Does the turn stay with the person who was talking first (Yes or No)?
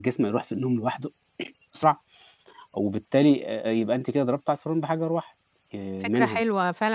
No